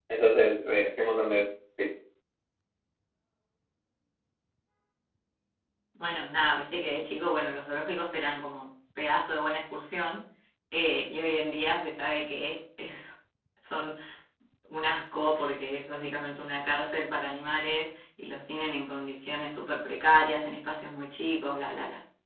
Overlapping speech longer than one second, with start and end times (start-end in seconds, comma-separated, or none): none